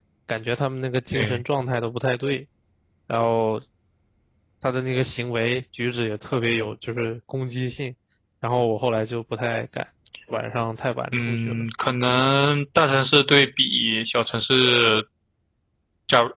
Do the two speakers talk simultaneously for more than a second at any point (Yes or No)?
No